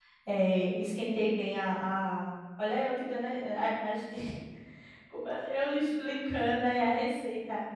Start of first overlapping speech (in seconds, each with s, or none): none